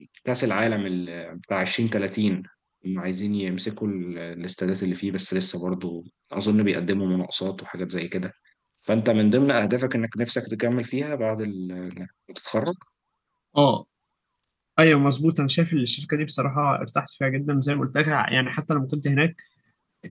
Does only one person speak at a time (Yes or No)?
Yes